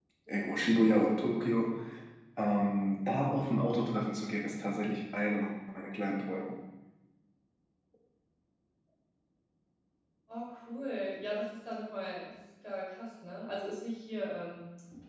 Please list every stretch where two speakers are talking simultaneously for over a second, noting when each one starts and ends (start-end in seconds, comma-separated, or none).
none